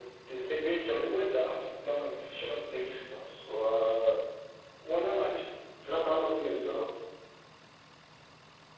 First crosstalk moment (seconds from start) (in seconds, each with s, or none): none